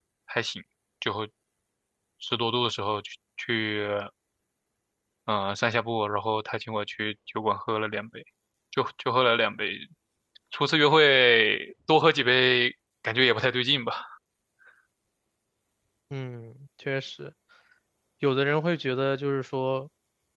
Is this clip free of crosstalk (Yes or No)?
Yes